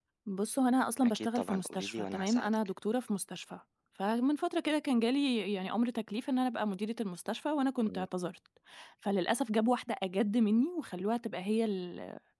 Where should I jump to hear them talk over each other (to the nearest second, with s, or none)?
1 s